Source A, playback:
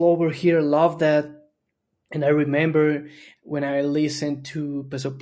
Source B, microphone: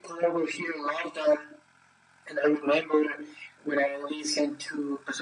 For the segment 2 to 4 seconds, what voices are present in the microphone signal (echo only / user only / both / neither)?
echo only